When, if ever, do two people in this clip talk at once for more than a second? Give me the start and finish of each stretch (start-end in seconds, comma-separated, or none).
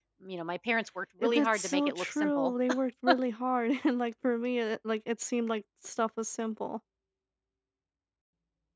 1.2-2.5